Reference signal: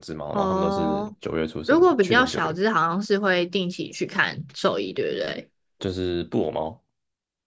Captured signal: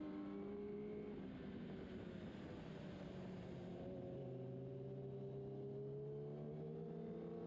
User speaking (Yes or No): No